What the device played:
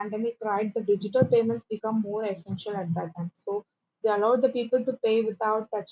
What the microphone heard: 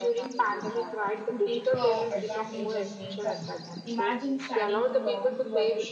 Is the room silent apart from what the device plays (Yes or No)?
No